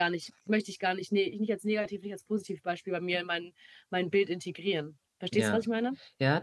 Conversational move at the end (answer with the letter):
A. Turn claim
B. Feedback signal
A